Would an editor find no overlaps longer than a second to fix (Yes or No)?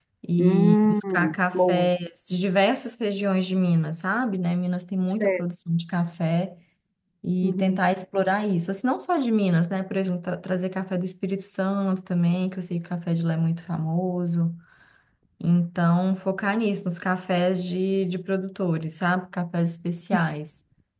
No